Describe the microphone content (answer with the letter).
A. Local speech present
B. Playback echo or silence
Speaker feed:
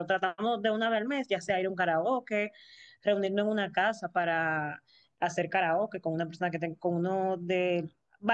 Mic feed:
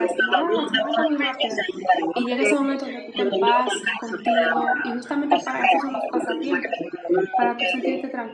A